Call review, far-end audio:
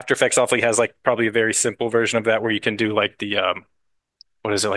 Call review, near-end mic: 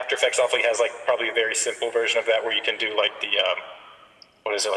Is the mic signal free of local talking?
Yes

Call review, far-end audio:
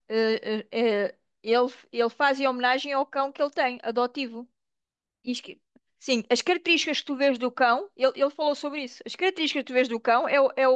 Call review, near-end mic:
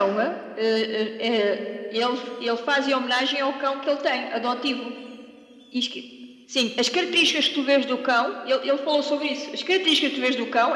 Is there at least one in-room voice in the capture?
No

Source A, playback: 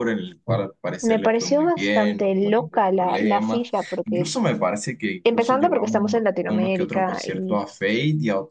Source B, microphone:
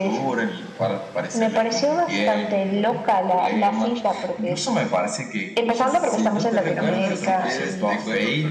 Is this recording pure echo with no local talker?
No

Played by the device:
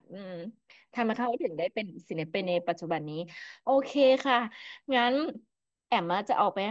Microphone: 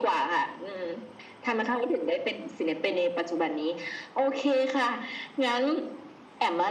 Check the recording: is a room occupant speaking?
No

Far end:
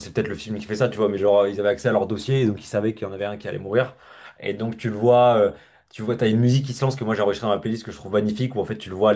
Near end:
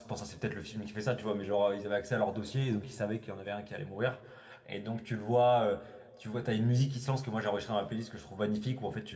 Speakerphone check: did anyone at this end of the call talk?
No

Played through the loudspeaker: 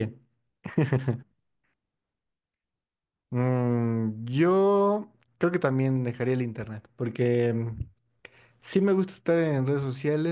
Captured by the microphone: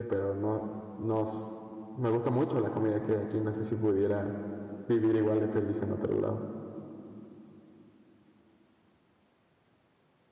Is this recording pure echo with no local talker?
No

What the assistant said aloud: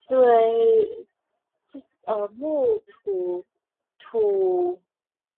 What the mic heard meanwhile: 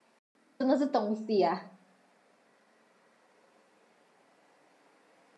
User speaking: Yes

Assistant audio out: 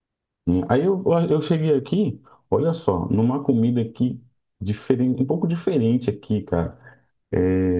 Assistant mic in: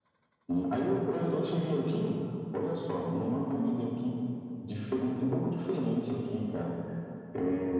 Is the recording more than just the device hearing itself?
No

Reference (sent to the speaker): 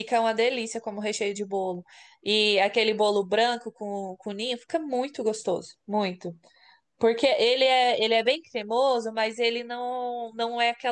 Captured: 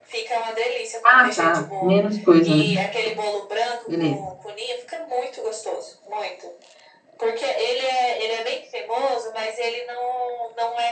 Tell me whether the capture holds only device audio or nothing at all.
No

